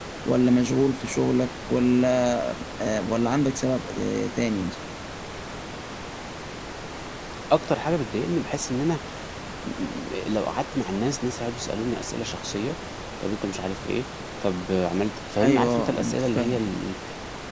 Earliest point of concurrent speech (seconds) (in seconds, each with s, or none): 15.4 s